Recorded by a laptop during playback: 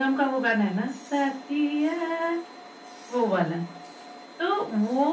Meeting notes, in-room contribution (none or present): none